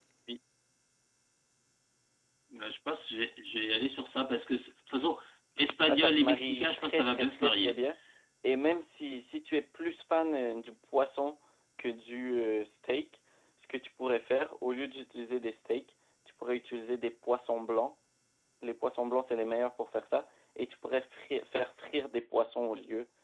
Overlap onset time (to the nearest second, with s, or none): 6 s